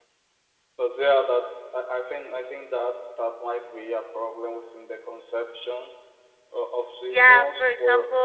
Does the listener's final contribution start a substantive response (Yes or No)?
Yes